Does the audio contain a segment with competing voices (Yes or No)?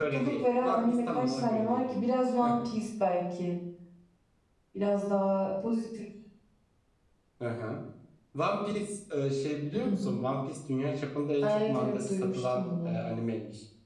Yes